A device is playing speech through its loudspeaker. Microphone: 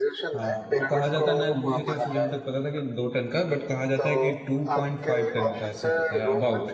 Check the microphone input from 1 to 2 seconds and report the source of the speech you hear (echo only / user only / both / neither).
both